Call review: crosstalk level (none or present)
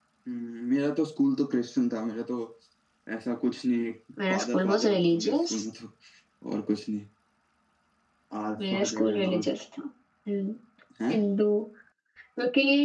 present